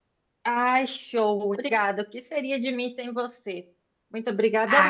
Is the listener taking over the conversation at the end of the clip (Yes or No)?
Yes